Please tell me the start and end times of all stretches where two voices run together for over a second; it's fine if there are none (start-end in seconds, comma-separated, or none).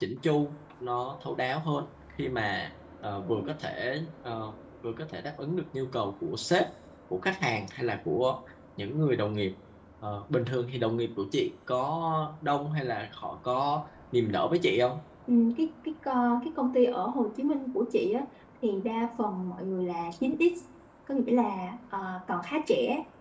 none